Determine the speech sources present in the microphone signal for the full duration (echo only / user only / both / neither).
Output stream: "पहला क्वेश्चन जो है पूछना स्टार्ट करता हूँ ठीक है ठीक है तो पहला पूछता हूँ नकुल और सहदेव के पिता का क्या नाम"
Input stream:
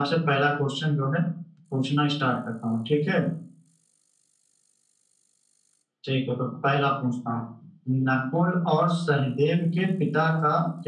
echo only